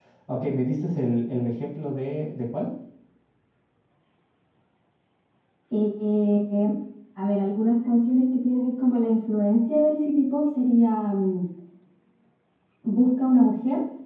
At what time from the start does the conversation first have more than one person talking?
none

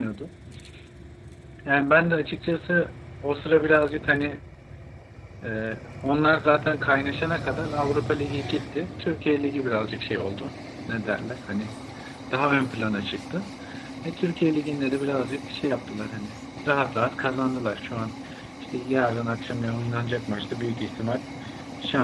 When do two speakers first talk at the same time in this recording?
none

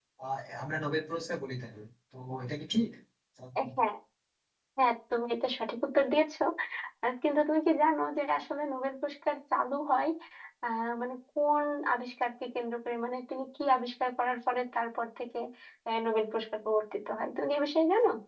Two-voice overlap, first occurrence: none

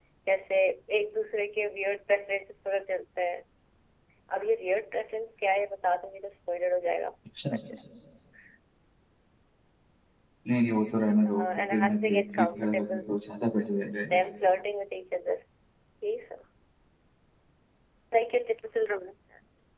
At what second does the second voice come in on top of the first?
11.4 s

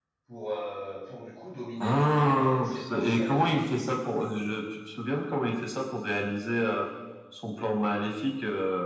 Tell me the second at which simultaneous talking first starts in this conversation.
1.8 s

